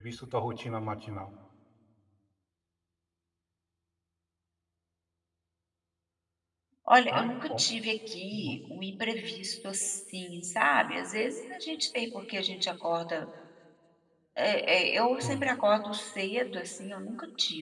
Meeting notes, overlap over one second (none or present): none